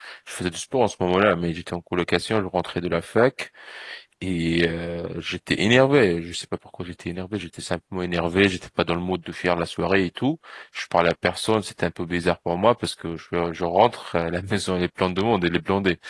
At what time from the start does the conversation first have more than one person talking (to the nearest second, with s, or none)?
none